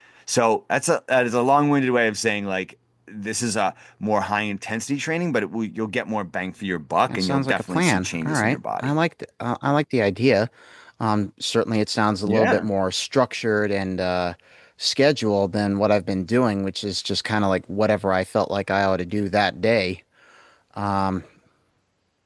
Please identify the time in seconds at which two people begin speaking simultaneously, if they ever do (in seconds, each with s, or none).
7.1 s